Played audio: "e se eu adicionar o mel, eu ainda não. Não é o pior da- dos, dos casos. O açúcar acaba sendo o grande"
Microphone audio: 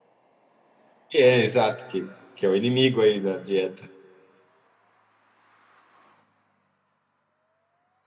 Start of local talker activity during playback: 1 s

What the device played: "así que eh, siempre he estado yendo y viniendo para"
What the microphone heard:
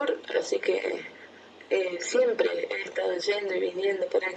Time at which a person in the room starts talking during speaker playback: none

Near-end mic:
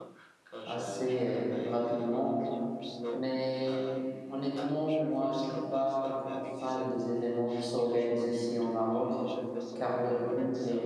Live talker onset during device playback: 1 s

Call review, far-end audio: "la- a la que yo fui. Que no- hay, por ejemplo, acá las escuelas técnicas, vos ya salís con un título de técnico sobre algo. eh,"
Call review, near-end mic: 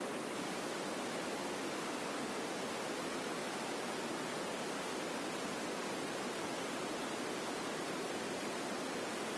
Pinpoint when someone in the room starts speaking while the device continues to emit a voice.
none

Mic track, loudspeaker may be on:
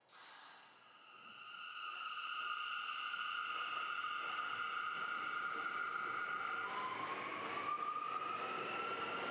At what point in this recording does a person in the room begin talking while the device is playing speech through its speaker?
none

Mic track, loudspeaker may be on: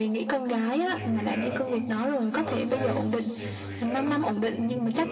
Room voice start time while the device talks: 1 s

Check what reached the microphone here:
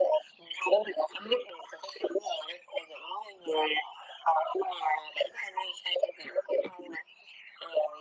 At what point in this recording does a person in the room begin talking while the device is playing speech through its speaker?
none

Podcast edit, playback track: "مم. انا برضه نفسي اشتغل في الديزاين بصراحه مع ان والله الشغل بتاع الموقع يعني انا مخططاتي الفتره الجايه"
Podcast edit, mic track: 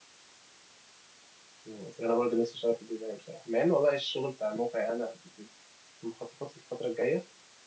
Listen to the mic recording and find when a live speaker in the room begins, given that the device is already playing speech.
none

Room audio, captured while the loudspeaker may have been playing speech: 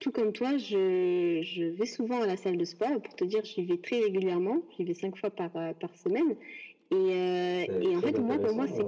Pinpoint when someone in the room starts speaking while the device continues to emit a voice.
8 s

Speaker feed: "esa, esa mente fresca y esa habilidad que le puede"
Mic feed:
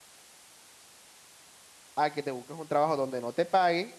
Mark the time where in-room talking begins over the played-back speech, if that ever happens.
2 s

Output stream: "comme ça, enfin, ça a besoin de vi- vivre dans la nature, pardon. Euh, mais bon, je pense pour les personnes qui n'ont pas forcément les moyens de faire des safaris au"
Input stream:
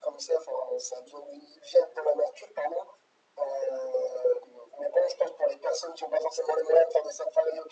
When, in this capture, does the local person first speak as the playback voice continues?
none

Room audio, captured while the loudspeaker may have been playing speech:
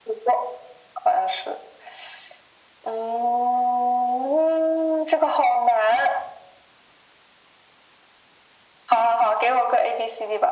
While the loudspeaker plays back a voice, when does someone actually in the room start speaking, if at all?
none

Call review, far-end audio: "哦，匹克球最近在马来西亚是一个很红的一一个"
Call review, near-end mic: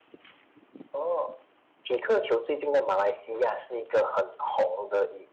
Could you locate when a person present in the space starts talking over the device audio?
none

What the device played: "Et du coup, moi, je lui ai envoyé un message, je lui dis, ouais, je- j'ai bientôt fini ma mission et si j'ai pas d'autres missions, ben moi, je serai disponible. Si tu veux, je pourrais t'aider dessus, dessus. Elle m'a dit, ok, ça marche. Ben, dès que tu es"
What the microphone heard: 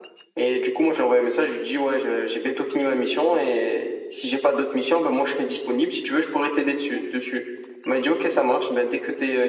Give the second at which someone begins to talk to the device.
none

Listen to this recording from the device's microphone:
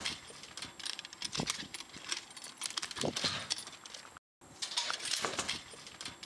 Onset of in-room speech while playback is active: none

